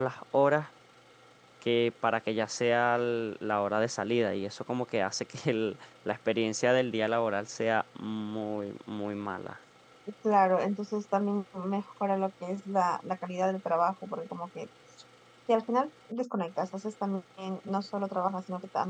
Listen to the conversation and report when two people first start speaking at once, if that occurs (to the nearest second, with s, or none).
none